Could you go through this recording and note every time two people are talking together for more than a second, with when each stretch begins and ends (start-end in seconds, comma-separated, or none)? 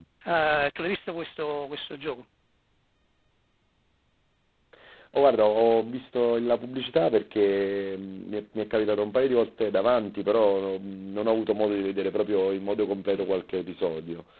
none